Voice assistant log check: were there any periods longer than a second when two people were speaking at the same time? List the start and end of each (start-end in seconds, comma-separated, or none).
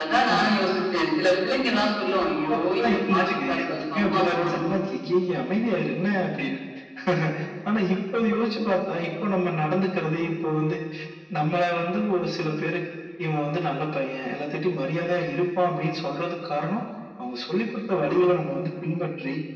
2.5-4.6